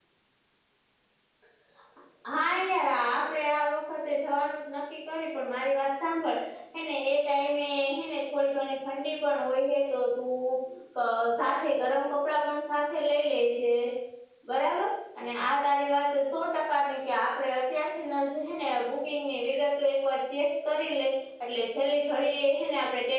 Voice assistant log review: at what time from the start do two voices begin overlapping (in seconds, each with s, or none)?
none